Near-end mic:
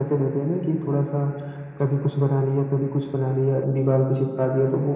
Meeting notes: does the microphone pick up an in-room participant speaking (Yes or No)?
No